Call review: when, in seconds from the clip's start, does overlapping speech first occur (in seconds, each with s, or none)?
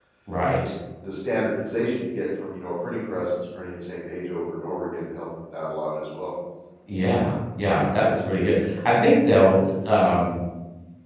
none